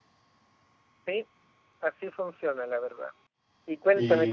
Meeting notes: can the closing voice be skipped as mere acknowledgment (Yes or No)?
Yes